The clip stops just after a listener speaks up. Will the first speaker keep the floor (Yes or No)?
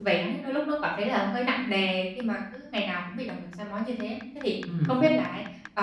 Yes